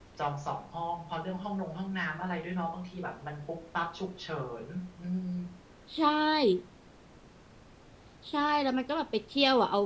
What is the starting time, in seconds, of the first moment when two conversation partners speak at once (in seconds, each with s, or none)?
none